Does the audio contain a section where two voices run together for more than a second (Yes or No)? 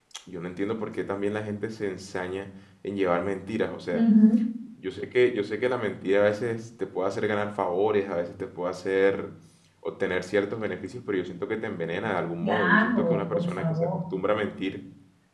Yes